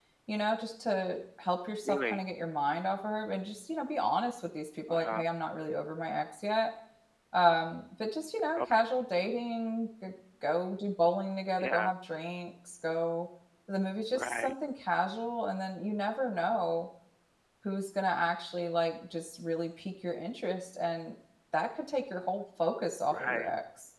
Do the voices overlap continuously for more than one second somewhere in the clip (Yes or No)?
No